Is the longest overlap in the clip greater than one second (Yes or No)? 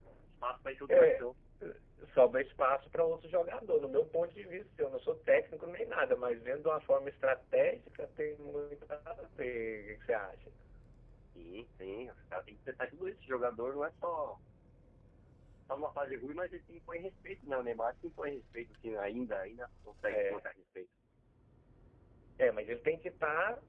No